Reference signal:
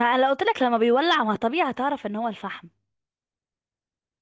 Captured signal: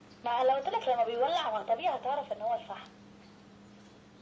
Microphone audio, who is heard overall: echo only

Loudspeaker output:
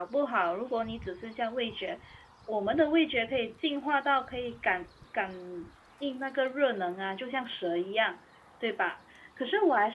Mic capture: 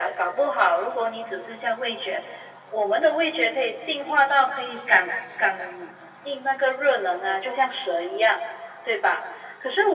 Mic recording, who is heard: echo only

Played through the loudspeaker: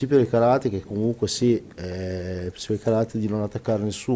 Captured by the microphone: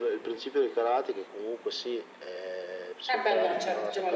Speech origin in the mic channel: both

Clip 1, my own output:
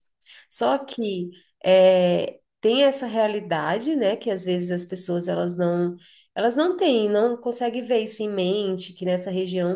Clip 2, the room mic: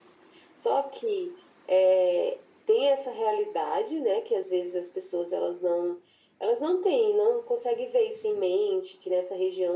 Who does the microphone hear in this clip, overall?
echo only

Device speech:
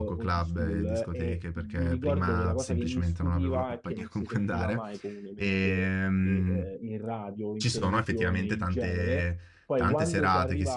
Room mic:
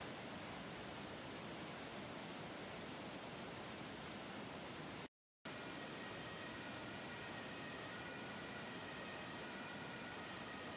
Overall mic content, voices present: neither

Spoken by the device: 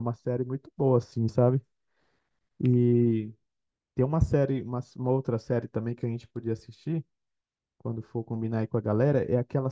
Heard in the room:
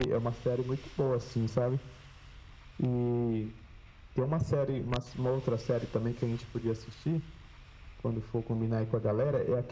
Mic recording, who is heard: echo only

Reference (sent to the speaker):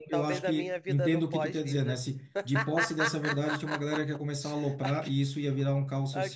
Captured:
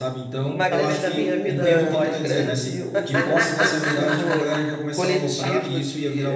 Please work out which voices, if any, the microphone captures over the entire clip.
both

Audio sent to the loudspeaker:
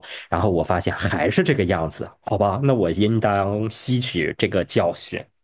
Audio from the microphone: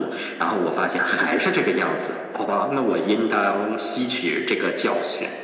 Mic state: echo only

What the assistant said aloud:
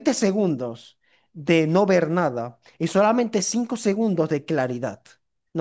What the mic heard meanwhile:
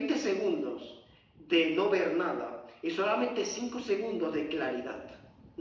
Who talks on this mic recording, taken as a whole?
echo only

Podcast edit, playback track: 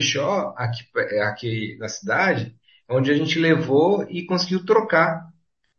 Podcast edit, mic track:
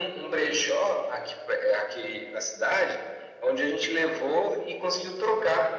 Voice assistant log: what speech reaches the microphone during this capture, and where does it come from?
echo only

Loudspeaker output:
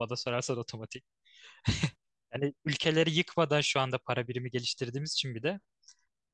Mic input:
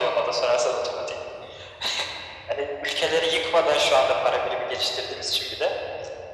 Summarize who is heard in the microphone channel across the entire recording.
echo only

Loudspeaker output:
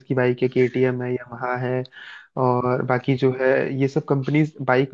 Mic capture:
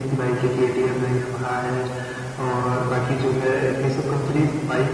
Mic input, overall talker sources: echo only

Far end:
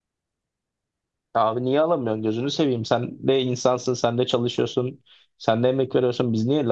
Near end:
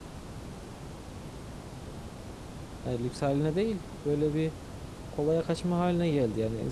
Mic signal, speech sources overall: user only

